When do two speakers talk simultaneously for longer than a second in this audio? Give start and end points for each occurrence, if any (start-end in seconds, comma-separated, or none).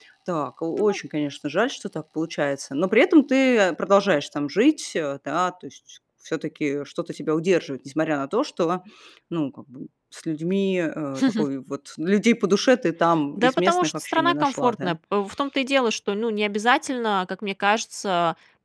13.3-15.0